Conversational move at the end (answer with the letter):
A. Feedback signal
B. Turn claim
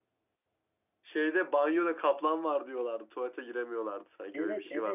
B